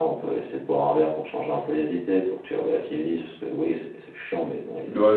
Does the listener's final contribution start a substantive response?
Yes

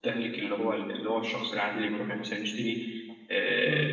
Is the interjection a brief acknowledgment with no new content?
Yes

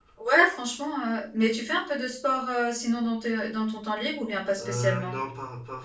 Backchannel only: No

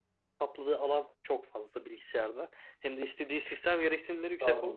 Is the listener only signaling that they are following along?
Yes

